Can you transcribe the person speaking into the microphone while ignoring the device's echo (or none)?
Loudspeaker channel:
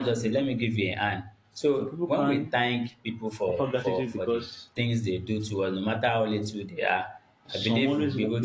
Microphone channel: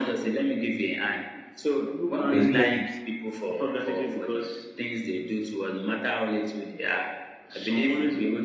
does he like it?